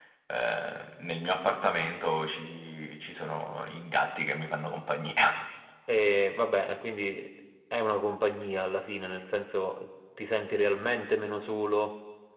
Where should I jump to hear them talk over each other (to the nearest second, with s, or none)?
none